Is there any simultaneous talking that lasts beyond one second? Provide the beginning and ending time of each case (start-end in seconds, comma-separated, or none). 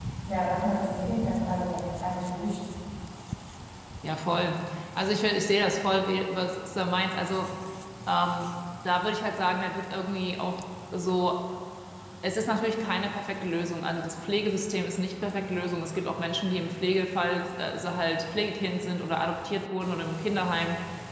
none